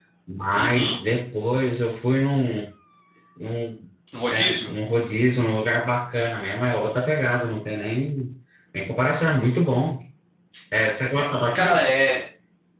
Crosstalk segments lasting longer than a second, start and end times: none

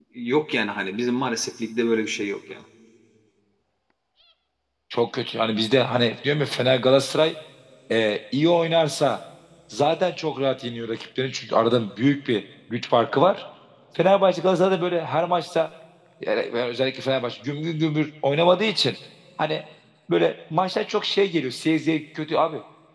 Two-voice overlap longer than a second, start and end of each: none

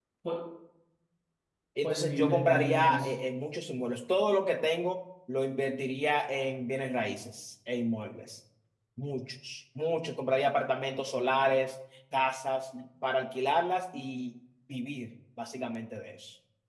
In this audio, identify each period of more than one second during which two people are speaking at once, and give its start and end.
1.8-3.1

